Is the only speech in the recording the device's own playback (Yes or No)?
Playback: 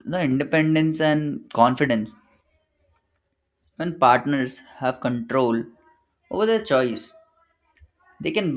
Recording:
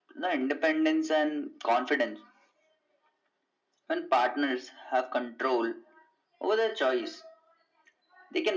Yes